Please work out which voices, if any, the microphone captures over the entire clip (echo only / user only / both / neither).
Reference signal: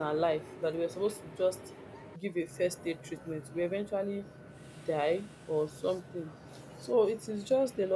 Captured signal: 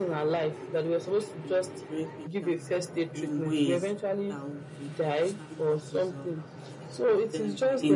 both